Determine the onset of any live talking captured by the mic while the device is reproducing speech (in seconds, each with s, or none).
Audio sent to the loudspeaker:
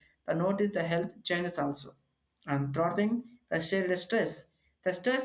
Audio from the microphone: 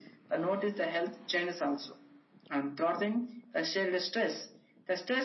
none